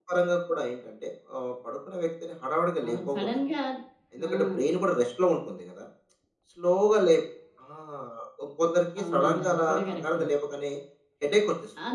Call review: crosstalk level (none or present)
present